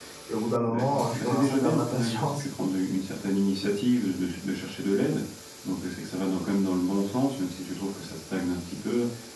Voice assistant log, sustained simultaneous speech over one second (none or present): present